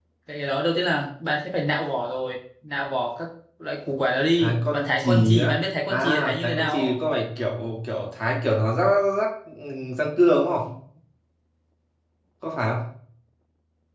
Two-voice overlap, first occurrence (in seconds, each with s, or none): 4.4 s